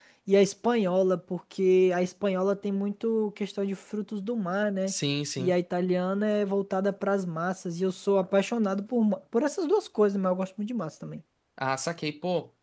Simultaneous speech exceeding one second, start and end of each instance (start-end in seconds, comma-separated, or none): none